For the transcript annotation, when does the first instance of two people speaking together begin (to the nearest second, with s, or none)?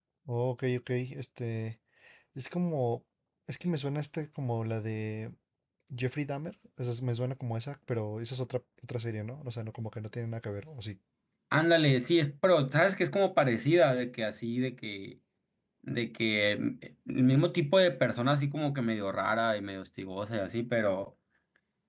none